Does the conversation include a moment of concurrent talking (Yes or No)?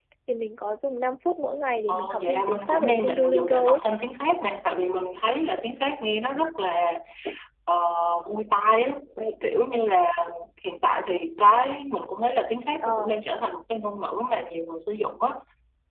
Yes